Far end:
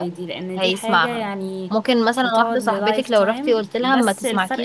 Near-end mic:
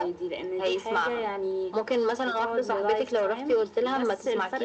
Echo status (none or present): present